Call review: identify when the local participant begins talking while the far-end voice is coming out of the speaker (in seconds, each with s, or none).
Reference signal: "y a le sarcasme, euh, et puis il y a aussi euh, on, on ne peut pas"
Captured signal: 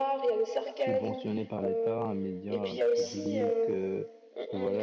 0.7 s